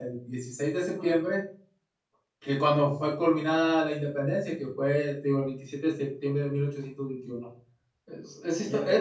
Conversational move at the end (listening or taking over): listening